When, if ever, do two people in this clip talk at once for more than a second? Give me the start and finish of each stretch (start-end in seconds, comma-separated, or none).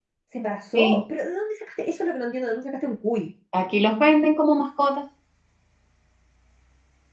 none